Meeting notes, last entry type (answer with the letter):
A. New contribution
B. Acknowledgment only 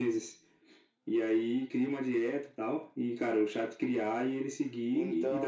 B